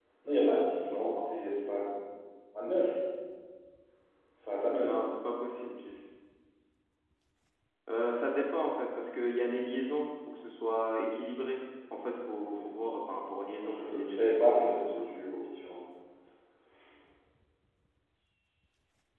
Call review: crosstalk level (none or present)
present